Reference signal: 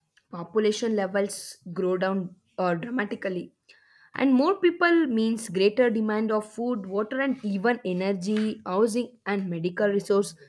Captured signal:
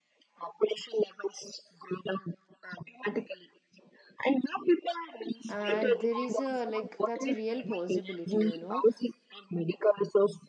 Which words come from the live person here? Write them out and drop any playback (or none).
And there is a like that's a real possibility, you know.